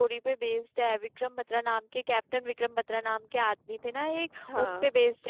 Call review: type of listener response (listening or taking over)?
listening